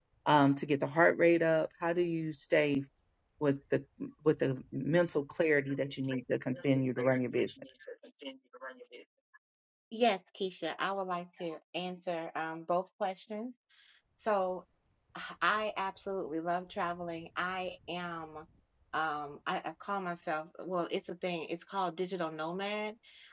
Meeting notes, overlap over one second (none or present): none